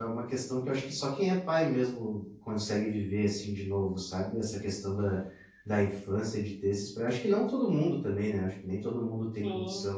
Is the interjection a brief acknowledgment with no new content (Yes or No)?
Yes